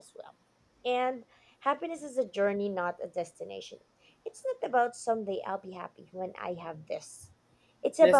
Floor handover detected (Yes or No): No